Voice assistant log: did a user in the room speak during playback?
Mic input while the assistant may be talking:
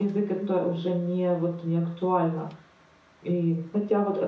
Yes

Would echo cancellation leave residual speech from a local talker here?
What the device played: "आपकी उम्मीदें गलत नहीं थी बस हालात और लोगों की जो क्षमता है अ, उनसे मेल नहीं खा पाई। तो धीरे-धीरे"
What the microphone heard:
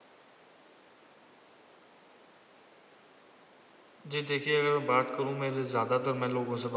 Yes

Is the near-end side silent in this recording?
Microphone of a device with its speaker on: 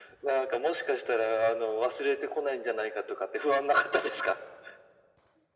Yes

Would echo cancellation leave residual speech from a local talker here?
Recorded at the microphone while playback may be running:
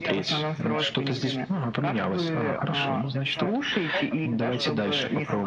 Yes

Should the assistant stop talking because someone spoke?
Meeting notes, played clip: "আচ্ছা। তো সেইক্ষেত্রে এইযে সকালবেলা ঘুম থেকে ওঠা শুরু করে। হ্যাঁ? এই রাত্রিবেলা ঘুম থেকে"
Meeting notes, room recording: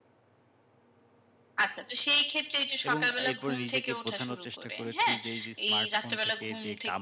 Yes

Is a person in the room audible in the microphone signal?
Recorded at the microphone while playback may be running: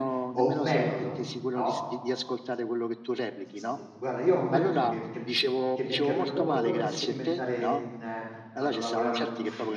Yes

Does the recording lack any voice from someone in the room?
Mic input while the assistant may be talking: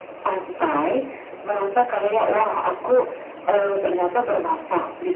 Yes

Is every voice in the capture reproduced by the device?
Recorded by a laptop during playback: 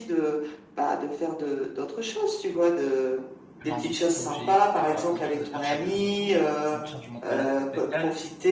No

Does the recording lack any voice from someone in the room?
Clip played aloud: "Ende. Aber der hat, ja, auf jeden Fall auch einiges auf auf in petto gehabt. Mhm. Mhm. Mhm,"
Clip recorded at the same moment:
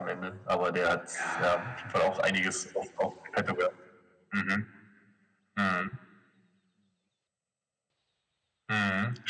No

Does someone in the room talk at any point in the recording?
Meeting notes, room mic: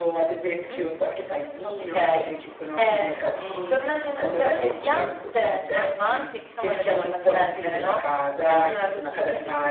No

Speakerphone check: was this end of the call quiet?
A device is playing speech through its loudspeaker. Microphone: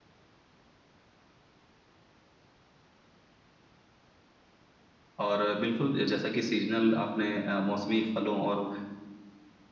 No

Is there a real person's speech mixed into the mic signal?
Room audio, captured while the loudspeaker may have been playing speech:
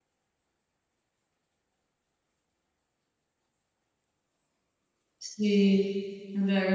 Yes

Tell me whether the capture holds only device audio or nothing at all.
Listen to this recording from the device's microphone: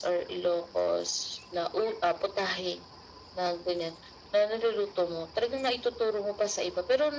Yes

